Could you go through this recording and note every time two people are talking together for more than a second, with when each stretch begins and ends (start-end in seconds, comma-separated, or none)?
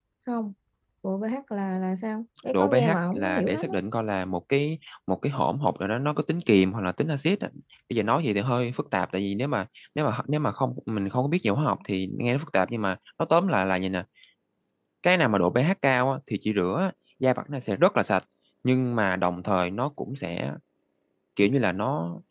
2.5-3.8